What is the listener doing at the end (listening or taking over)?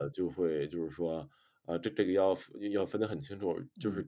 listening